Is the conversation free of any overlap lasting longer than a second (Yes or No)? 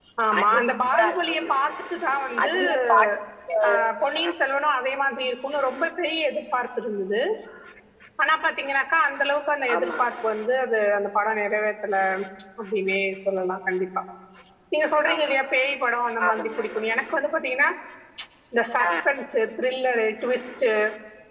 No